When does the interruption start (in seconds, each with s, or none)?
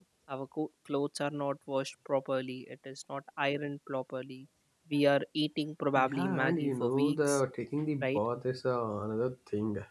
6.0 s